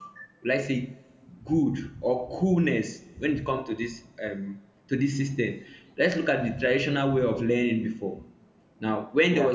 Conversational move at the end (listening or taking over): listening